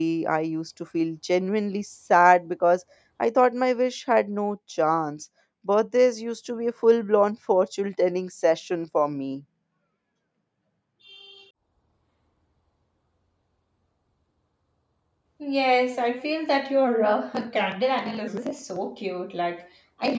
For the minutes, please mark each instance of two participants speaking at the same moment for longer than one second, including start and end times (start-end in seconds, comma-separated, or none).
none